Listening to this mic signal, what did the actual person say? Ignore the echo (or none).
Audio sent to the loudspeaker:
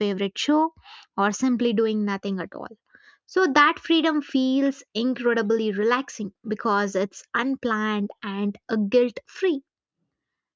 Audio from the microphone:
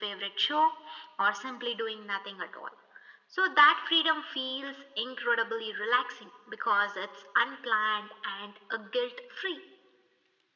none